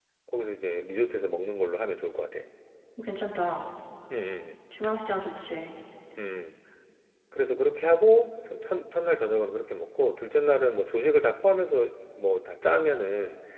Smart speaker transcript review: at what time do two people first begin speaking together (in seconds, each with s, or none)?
none